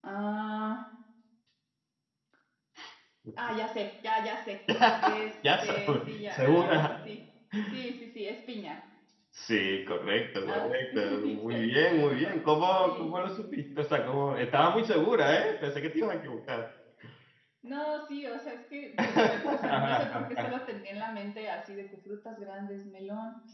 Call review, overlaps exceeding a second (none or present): present